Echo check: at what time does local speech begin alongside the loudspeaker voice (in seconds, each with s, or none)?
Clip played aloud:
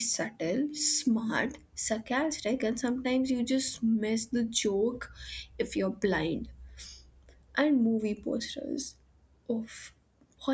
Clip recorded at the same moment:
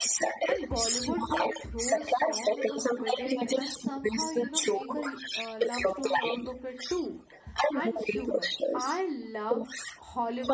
0.5 s